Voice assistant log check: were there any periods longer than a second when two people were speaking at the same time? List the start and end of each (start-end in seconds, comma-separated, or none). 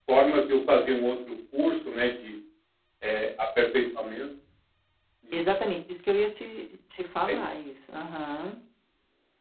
none